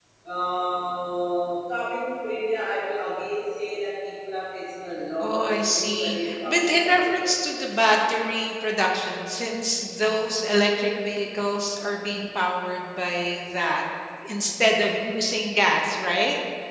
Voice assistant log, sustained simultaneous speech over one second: present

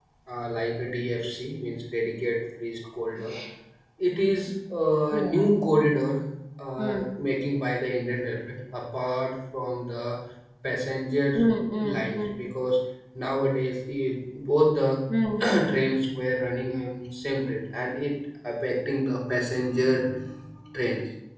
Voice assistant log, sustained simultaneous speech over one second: none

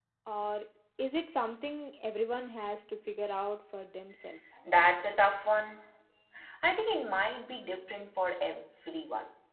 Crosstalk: none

